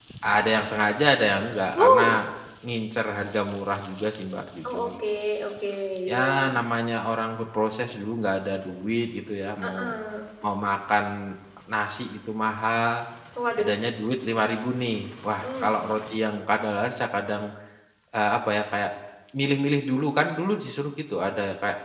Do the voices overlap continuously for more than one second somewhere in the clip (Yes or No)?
No